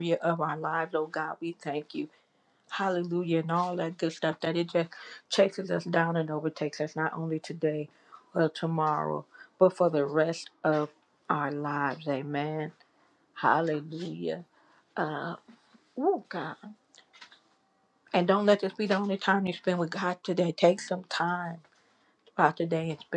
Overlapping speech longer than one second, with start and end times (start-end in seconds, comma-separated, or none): none